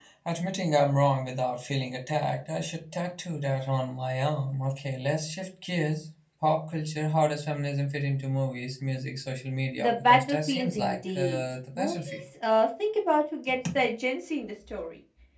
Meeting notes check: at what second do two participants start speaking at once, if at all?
10 s

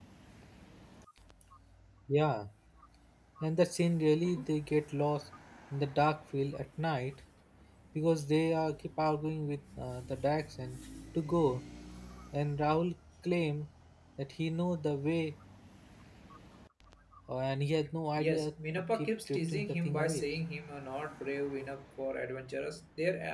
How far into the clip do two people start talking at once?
18 s

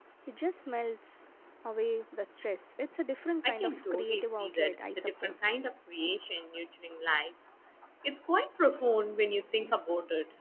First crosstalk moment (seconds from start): 3 s

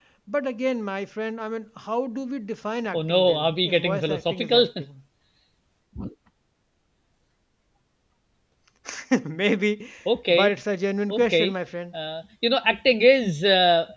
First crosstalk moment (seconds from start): 3 s

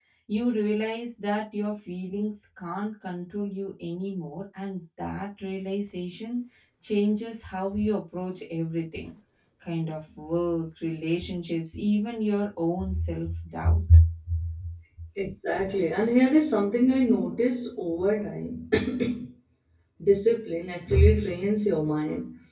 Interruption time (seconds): none

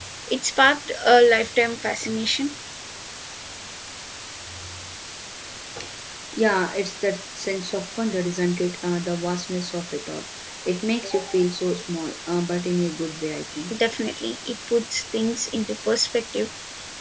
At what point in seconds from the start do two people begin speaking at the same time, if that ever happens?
none

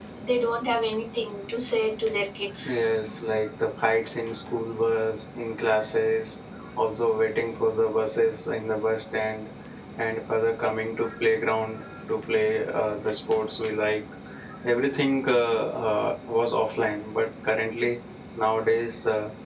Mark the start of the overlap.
none

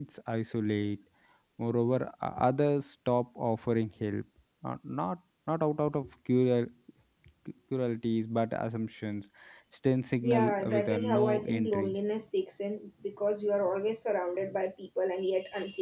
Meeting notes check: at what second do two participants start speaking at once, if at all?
10 s

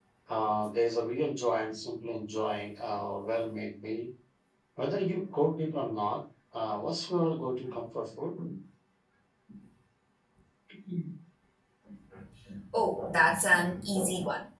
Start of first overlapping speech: none

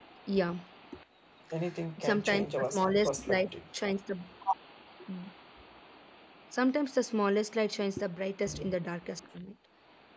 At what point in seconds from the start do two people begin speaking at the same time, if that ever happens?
2 s

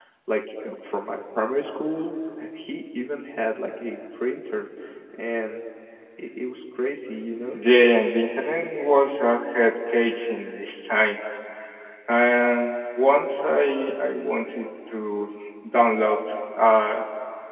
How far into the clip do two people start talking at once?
none

